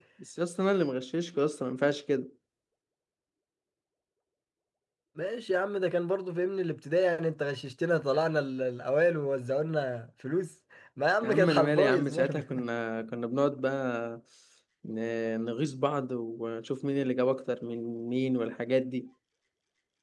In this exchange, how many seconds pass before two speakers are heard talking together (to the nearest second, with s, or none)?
11 s